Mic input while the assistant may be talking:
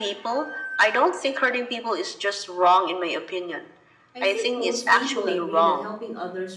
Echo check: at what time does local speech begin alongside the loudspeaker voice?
4.2 s

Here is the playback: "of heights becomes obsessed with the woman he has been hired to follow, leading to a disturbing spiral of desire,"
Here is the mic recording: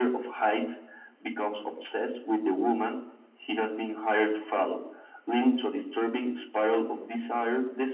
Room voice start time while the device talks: none

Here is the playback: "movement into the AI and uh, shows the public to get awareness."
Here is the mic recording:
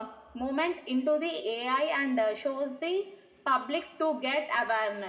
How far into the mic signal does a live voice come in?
none

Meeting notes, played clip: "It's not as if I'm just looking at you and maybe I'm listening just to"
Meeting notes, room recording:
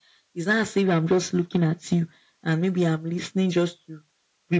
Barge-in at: none

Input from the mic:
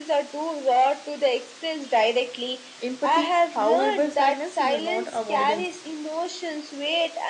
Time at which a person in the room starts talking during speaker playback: 2.8 s

